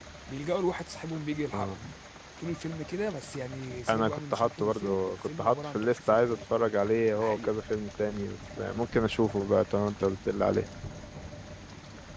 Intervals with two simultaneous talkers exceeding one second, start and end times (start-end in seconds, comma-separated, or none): 3.9-6.4